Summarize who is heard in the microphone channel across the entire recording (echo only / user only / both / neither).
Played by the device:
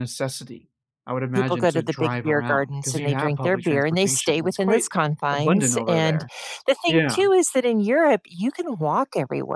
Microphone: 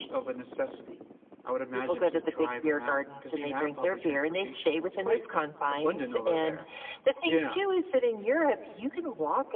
echo only